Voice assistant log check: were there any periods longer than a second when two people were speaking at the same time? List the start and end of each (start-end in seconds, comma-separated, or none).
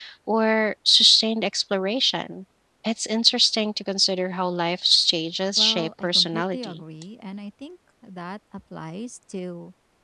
5.6-6.8